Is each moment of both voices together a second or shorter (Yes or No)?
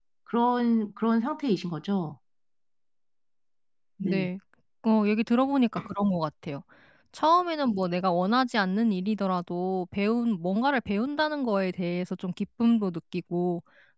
Yes